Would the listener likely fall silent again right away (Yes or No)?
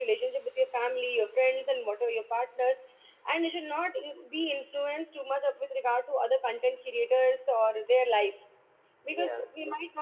Yes